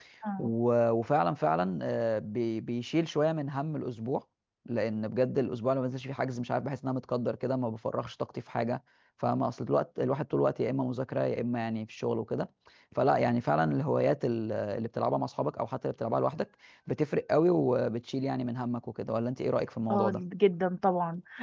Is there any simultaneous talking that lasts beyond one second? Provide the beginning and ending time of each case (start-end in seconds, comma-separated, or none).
none